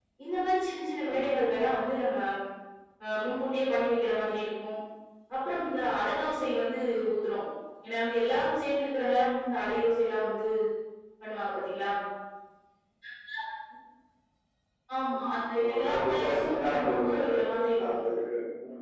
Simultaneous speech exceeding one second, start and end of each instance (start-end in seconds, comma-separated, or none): 15.6-17.2